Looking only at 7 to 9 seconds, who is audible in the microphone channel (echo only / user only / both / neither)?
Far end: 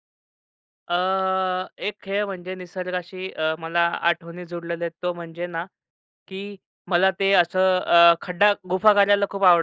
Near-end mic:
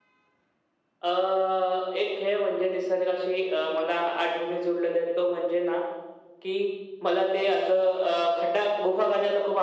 echo only